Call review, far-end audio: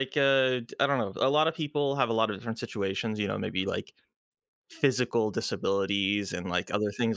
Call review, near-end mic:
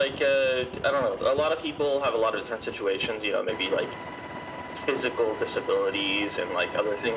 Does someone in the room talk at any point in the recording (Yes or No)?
No